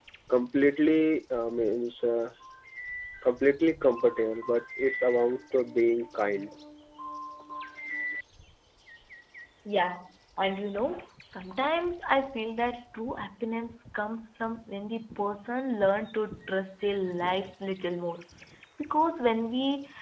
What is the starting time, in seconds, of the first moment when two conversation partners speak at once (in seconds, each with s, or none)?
none